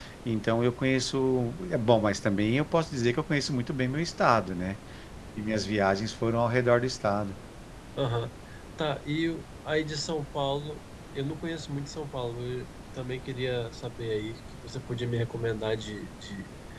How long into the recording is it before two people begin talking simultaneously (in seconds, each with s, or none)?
none